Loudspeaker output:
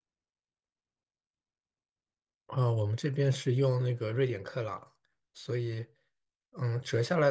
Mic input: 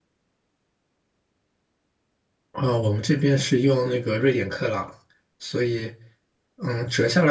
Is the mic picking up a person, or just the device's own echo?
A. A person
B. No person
B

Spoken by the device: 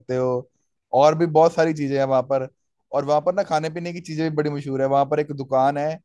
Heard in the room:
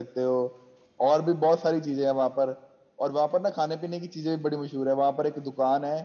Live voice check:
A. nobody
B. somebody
A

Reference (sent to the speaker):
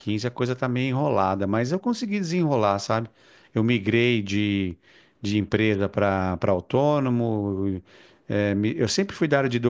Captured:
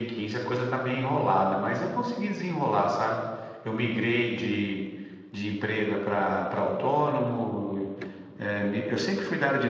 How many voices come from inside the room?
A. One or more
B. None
B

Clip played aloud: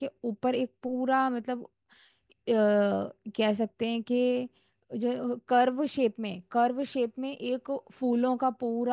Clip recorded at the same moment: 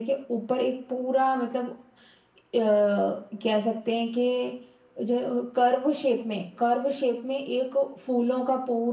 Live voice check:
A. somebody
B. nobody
B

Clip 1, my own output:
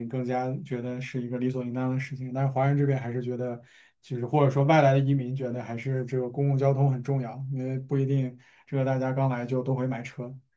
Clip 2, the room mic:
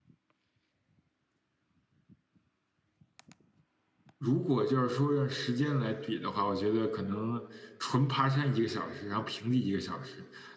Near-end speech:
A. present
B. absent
A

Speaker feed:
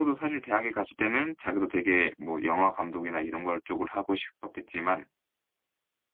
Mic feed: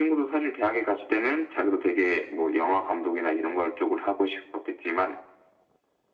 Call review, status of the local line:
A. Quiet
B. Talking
A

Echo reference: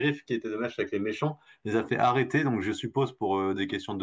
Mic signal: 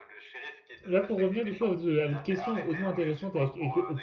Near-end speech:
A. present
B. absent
A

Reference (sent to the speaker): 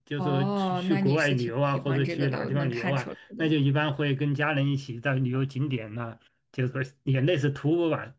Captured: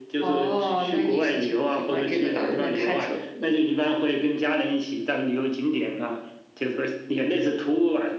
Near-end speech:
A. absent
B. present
A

